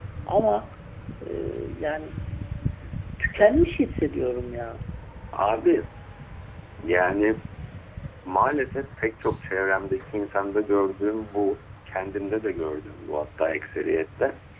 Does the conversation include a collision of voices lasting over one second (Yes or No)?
No